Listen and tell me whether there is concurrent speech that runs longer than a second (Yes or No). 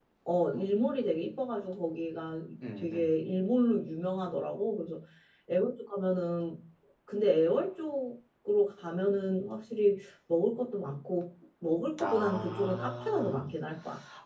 Yes